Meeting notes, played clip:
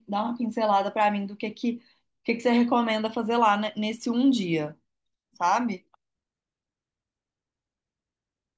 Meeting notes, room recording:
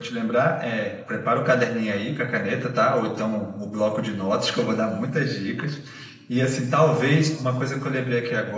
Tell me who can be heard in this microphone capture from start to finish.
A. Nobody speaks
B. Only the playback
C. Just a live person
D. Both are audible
C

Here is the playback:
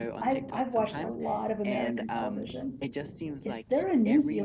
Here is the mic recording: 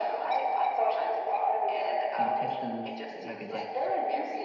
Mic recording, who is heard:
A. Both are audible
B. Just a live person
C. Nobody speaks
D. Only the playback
A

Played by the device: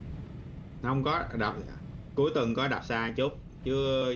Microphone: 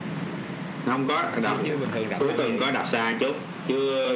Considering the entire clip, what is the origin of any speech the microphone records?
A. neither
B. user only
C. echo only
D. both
D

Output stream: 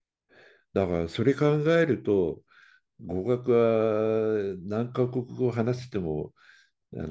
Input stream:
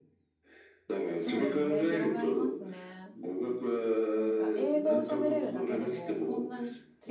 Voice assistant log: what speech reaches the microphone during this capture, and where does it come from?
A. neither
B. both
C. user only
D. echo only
B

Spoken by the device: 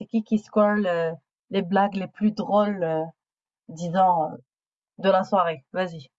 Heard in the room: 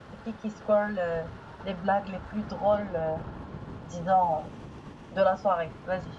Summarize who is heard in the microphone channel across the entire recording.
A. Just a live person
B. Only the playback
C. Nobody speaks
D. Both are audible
B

